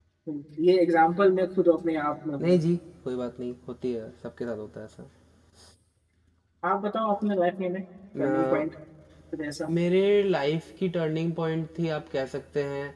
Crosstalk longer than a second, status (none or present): none